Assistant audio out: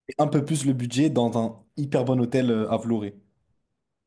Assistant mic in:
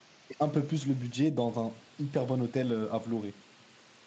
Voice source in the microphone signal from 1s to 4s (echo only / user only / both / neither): echo only